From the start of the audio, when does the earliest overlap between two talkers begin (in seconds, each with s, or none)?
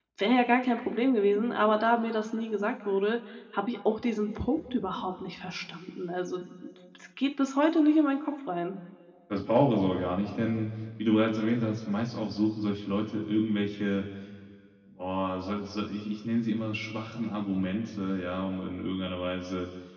none